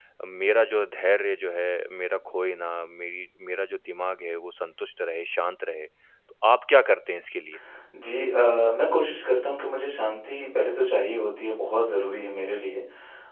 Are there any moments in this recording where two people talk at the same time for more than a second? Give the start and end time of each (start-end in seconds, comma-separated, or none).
none